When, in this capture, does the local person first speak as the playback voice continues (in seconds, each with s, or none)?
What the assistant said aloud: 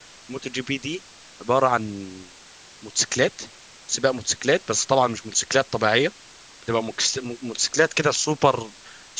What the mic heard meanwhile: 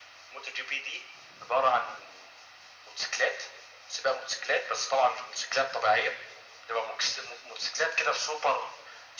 none